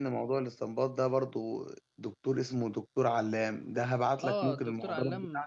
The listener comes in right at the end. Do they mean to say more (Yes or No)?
Yes